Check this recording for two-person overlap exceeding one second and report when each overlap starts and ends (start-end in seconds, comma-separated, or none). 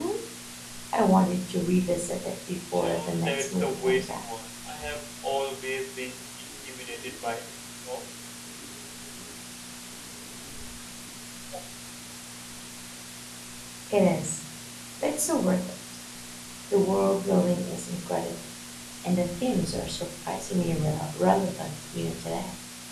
2.8-4.2